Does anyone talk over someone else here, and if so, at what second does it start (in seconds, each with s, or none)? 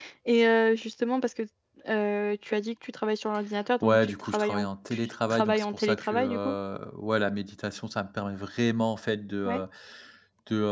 3.8 s